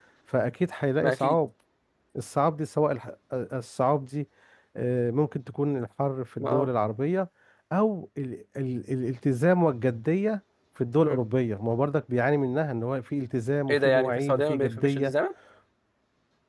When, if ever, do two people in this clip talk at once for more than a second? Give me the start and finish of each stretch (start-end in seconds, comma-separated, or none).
13.7-15.1